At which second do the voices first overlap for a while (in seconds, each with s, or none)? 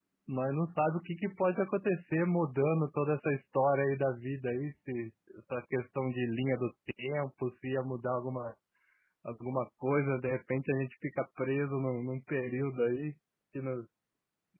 none